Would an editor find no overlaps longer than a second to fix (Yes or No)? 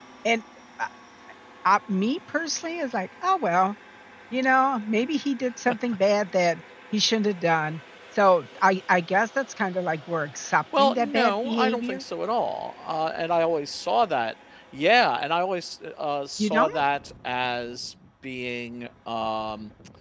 No